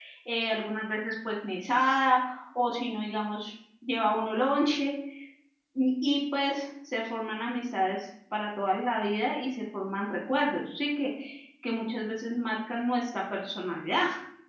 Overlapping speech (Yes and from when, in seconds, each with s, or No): No